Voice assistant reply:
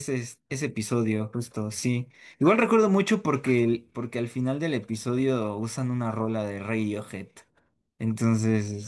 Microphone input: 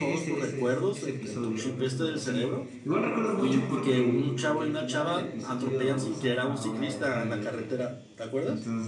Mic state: both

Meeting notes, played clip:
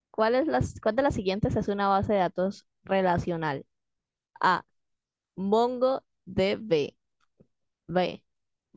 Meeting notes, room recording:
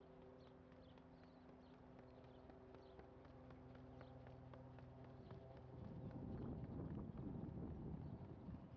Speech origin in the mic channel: neither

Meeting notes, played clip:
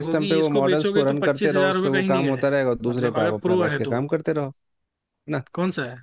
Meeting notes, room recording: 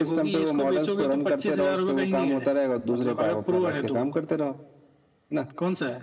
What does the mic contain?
echo only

